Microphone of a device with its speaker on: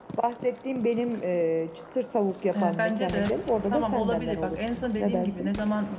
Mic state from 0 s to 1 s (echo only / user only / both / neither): echo only